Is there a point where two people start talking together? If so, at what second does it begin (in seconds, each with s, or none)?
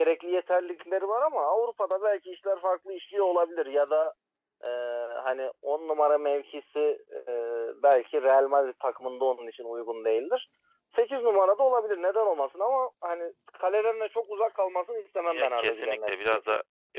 15.3 s